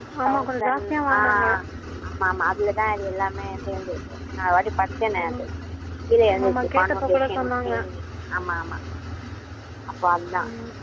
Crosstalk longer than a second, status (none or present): present